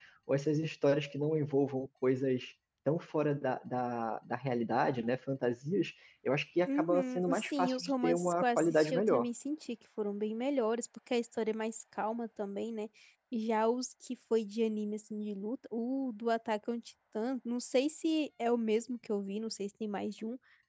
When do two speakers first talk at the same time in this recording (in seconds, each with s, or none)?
6.7 s